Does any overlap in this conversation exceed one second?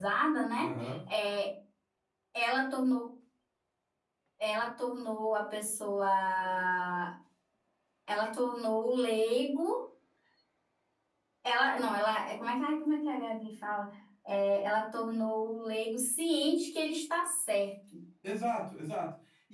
No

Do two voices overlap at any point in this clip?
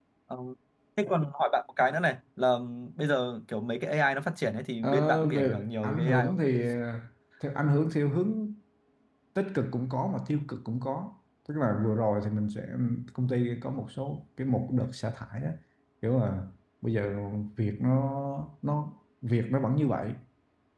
Yes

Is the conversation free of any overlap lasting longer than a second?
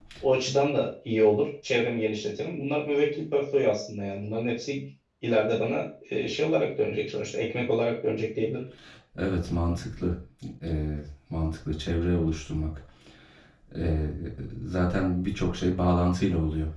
Yes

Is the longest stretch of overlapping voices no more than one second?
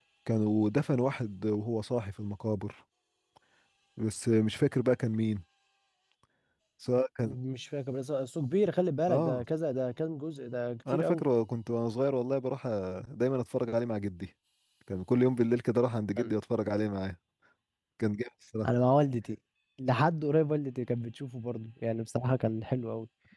Yes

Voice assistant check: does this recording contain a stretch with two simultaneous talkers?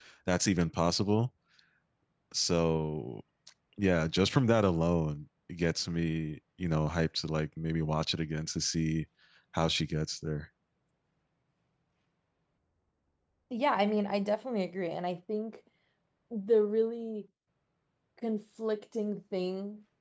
No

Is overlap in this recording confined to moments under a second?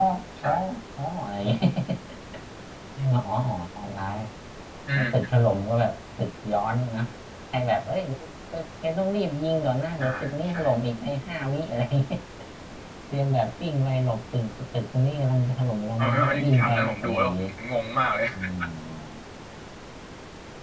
No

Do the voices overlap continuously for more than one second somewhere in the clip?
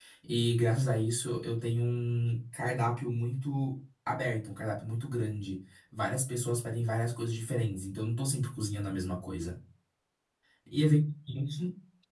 No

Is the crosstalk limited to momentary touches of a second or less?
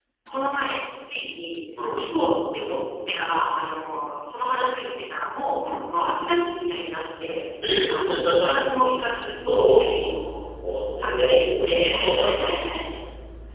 No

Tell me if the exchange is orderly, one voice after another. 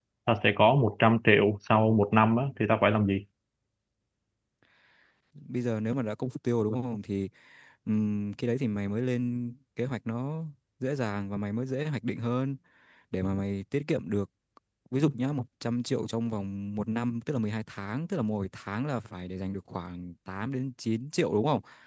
Yes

